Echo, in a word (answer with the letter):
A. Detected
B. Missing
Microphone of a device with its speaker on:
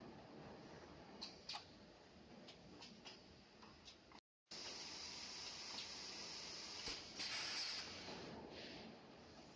B